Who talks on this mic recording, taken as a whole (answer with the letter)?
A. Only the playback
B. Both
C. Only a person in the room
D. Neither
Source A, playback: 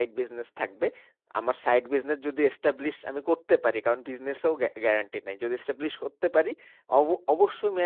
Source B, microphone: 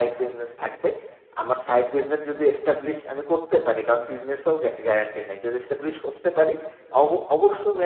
A